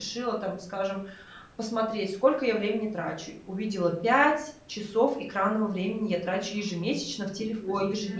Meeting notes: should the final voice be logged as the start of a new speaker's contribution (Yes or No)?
No